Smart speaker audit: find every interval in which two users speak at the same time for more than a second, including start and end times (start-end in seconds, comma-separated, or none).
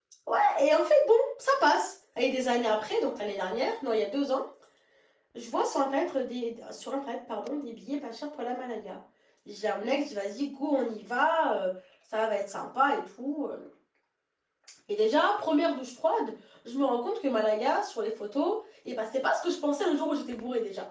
none